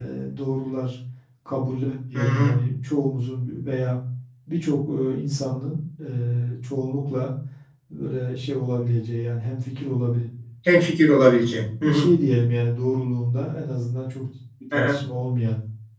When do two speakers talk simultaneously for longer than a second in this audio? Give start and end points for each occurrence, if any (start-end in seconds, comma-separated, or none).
none